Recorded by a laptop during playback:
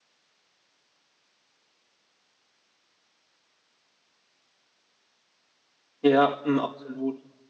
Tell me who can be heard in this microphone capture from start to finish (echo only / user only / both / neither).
user only